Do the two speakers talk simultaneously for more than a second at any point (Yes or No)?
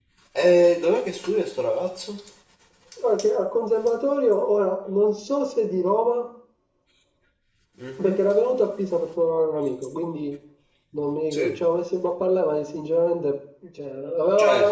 No